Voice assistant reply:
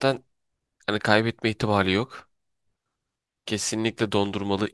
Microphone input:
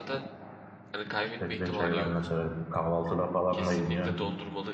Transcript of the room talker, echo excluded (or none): Çilek reçeli ben de severim. Kahvaltıda falan da yeniyor.